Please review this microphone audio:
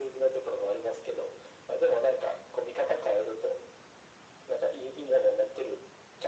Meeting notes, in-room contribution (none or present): none